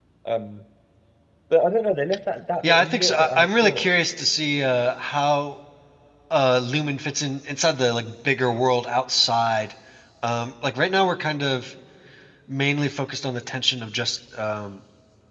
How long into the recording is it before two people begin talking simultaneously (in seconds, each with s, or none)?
2.6 s